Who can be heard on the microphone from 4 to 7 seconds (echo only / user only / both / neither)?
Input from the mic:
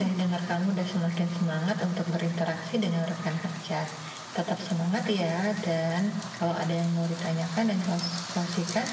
echo only